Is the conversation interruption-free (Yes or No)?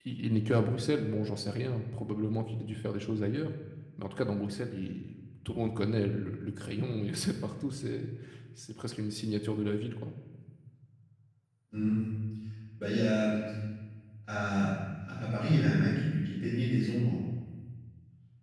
Yes